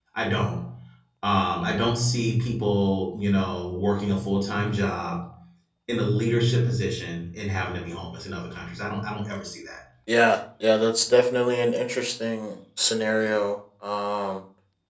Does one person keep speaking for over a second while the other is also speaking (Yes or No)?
No